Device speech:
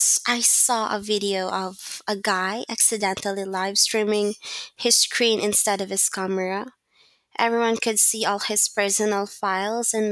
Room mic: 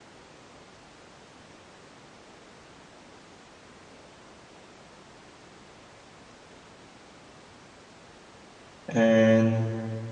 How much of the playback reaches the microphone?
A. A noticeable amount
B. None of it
B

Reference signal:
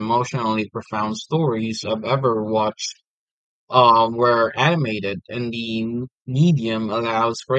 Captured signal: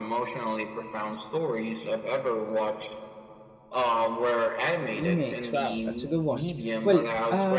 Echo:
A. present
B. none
A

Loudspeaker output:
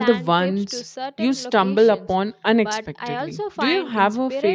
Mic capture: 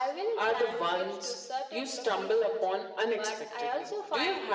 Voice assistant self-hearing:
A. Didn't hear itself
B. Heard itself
B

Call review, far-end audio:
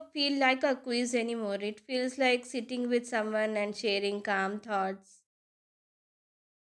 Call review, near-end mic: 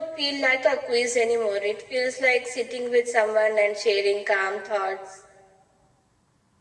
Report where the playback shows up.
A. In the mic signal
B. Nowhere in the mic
A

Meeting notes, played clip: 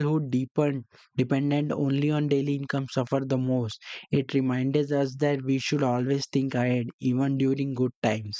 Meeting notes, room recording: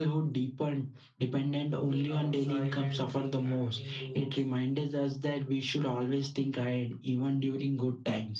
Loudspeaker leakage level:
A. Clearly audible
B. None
A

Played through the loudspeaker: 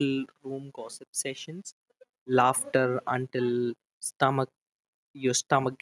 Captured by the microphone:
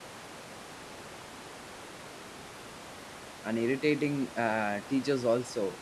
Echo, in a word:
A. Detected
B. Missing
B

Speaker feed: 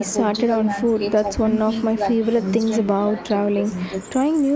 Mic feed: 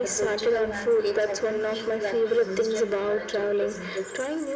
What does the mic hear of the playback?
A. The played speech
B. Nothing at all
A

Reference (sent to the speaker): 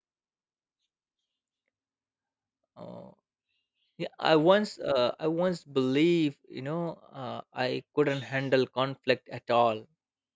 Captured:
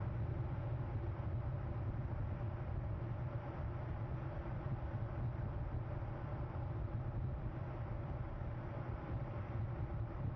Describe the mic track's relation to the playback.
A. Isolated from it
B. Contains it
A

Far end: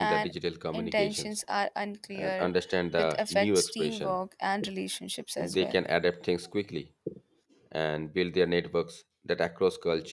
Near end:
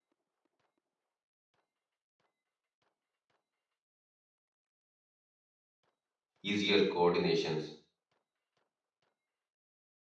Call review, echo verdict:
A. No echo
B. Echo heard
A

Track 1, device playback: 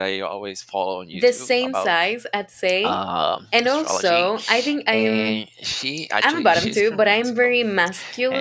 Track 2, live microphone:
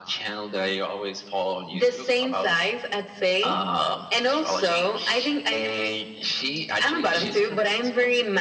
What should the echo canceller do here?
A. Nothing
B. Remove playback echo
B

